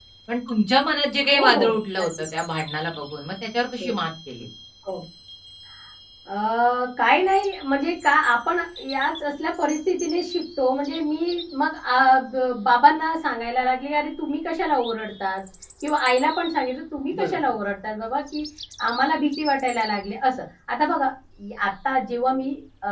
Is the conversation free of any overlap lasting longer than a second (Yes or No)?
Yes